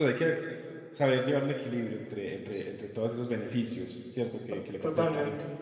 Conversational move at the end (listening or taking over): taking over